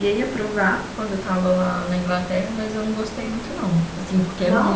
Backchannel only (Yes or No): Yes